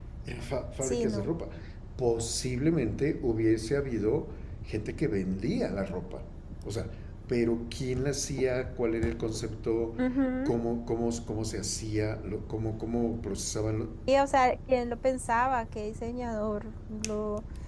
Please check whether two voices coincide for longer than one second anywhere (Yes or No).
No